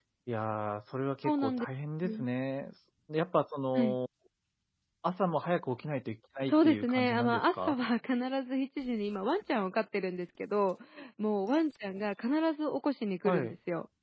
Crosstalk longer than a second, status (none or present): present